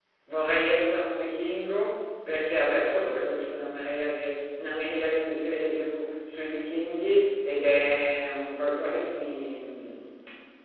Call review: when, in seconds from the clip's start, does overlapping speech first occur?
none

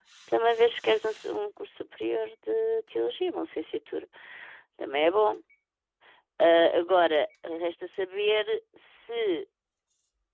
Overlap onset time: none

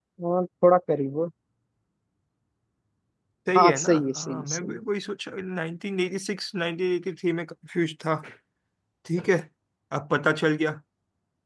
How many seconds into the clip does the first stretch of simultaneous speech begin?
3.6 s

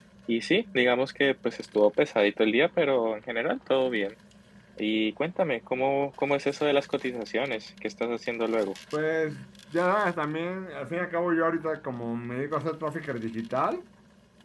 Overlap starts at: none

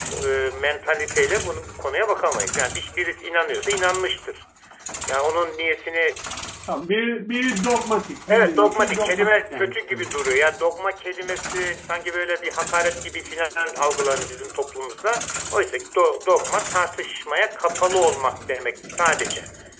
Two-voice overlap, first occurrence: 8.3 s

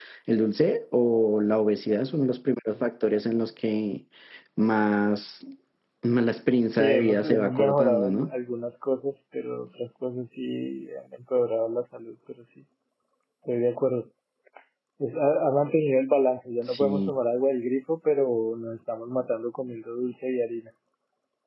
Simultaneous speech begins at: 6.7 s

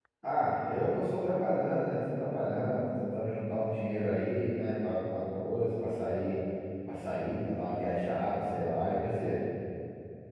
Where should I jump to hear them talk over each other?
none

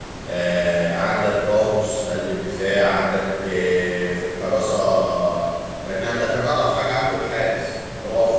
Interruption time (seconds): none

